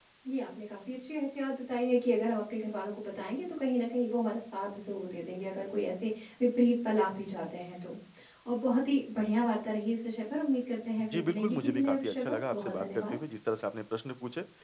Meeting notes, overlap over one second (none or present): present